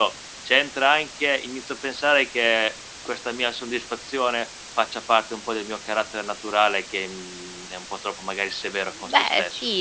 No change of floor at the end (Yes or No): No